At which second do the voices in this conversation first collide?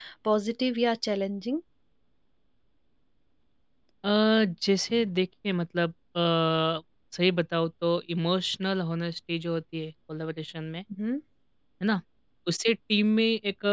none

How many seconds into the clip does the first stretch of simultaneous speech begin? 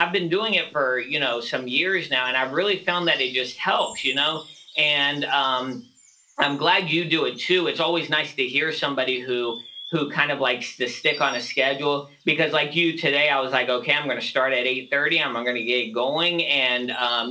none

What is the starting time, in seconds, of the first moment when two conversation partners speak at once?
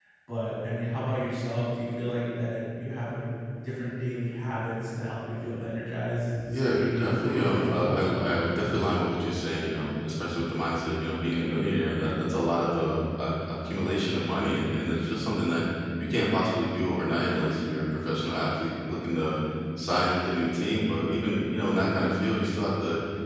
6.4 s

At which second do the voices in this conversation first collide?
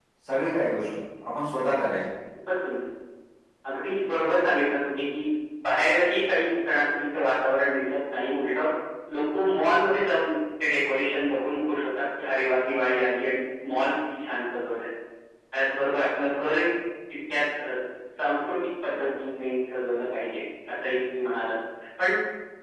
none

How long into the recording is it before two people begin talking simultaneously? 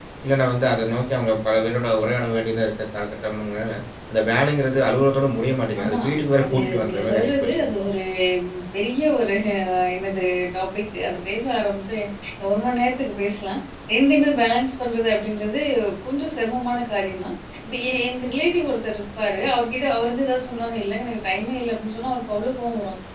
5.8 s

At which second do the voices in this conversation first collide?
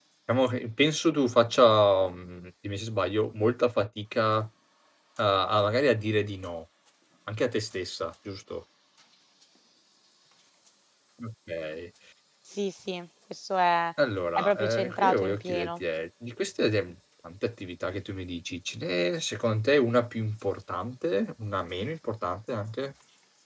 14.4 s

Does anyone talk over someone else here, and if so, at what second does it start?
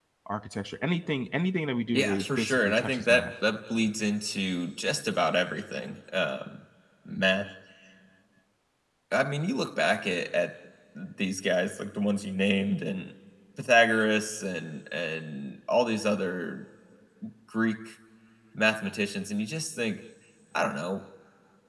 1.9 s

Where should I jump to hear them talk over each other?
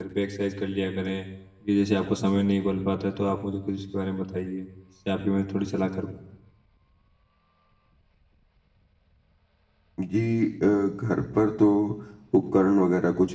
none

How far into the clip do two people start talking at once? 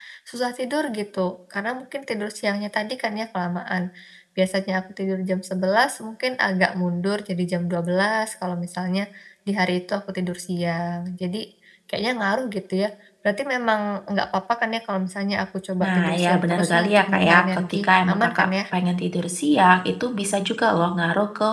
15.8 s

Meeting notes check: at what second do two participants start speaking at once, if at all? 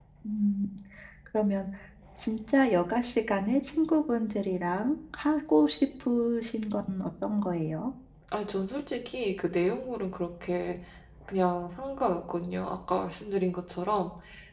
none

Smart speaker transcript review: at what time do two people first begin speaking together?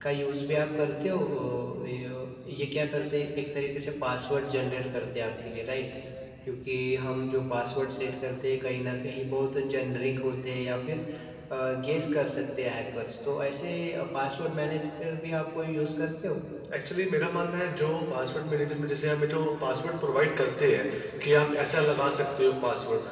none

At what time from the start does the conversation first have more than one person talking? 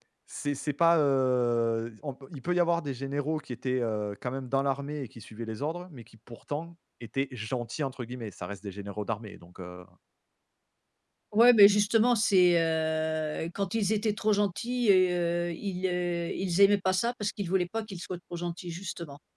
none

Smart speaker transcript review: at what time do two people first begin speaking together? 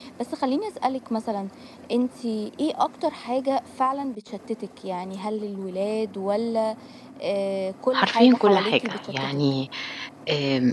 7.9 s

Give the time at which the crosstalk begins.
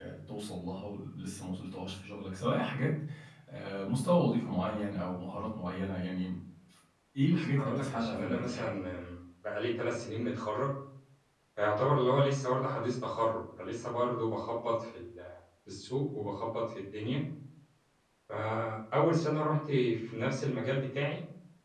7.3 s

